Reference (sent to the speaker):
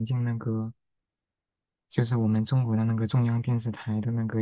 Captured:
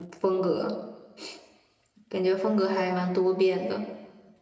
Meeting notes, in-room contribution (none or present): present